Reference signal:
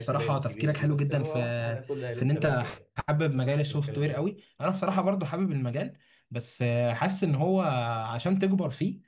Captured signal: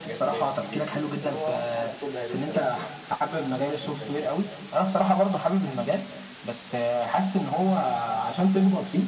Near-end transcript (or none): none